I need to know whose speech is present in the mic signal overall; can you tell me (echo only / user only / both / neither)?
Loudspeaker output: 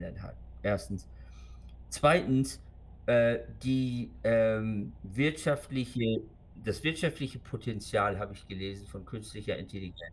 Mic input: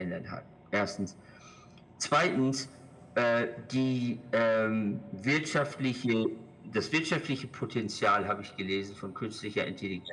echo only